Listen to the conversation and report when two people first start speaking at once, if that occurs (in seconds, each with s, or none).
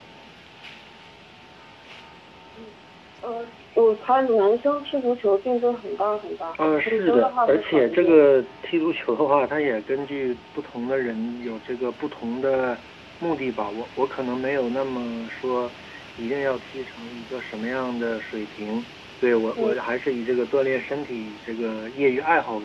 6.8 s